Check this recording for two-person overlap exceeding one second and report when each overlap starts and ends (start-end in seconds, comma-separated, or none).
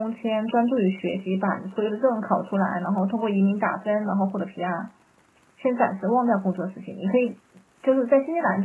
none